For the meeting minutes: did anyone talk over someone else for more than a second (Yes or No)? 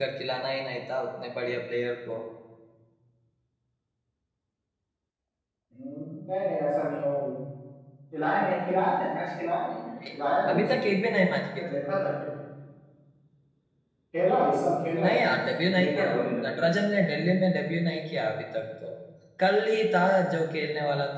Yes